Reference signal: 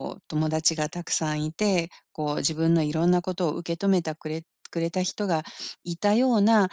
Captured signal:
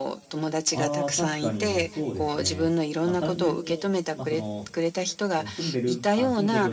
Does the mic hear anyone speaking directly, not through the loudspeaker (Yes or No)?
Yes